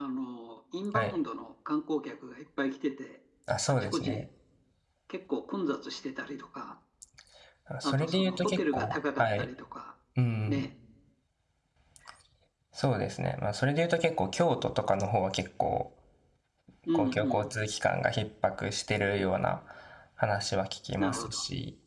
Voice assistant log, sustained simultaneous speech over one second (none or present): present